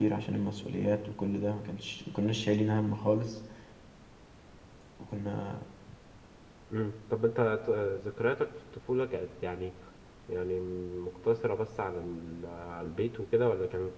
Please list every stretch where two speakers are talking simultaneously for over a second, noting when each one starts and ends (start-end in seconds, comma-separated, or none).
none